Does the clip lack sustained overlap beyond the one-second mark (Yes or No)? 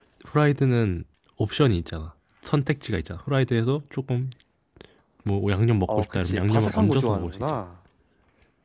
No